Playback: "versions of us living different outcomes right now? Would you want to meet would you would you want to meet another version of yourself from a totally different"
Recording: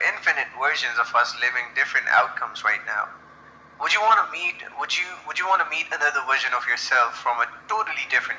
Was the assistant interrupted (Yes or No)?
No